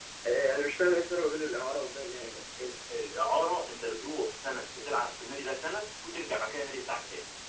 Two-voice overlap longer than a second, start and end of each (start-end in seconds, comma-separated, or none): none